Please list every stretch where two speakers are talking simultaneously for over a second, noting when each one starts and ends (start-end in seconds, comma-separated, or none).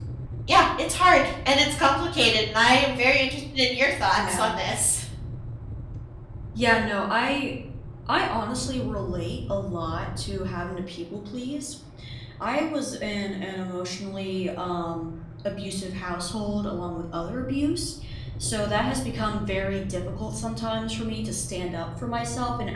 none